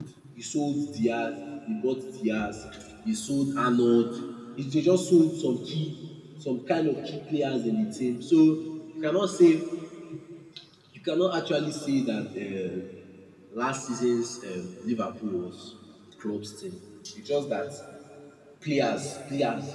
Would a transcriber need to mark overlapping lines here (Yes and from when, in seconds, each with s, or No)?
No